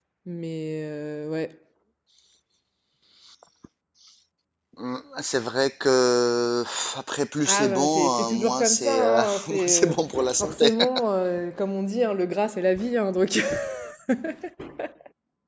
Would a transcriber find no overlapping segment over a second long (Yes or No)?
No